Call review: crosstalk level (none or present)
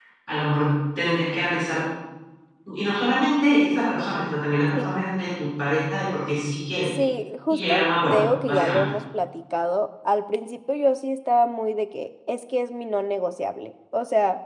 present